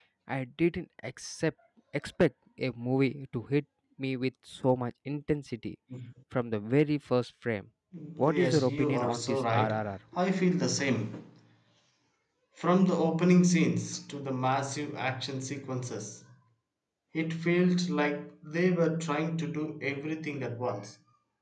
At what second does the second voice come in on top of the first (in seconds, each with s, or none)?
8.2 s